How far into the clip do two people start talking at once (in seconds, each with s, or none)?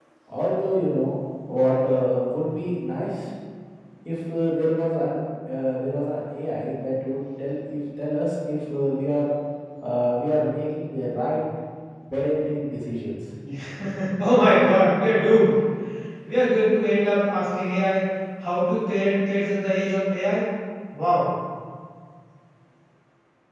none